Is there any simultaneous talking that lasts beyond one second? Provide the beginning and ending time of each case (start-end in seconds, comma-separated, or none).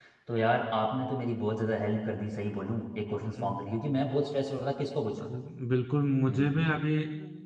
none